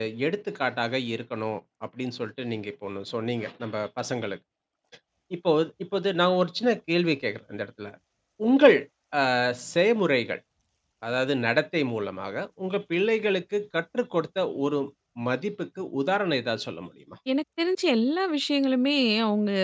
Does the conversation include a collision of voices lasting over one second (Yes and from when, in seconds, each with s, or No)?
No